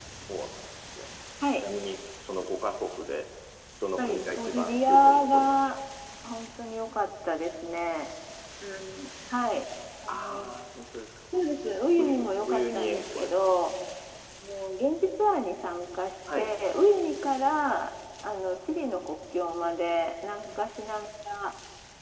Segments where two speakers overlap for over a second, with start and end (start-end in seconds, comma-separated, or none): 4.0-5.8, 12.0-13.3